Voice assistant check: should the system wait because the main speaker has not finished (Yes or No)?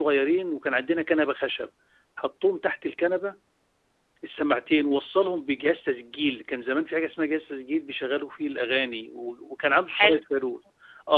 Yes